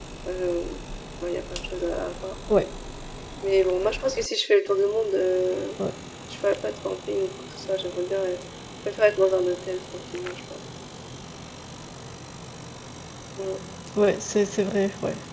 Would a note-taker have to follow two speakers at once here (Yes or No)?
No